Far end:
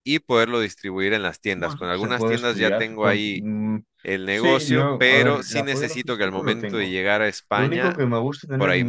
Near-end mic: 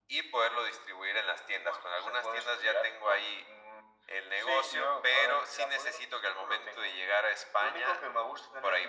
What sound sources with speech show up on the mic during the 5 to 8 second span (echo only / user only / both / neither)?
echo only